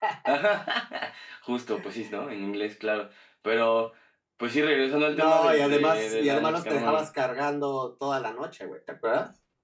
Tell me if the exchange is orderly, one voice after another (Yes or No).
No